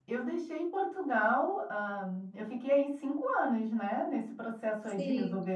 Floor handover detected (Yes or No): No